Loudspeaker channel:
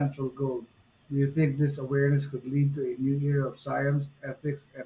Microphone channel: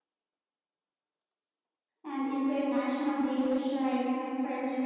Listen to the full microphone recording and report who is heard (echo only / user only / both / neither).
user only